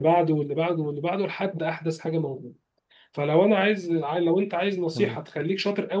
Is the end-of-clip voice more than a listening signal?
No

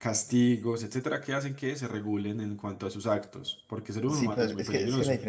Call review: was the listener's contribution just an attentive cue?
No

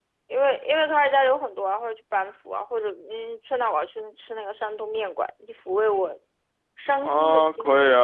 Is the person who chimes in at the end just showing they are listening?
No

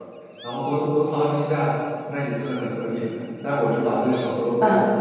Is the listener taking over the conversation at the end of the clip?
Yes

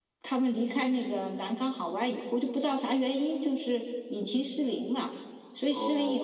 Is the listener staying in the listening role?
Yes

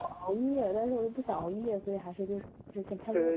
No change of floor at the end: No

